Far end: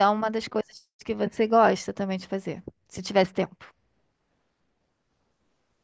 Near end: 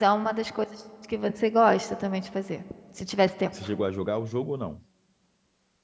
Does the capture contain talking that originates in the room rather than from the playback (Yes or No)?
Yes